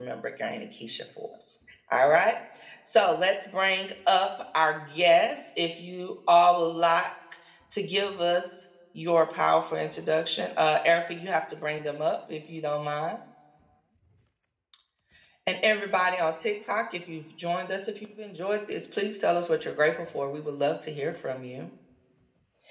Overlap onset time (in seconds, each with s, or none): none